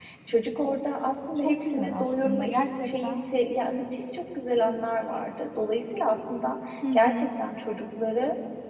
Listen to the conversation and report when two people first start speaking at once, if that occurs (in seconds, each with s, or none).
1.4 s